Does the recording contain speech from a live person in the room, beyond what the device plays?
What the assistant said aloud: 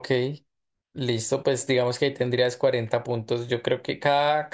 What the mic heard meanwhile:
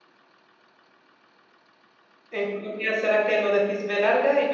Yes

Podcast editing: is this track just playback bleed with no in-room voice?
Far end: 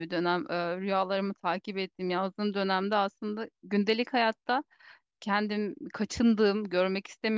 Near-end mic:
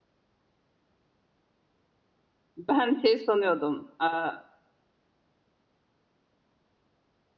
No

